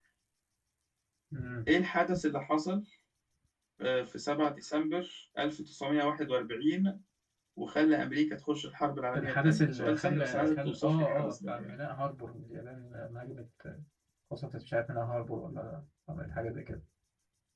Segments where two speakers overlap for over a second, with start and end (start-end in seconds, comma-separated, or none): 9.1-11.8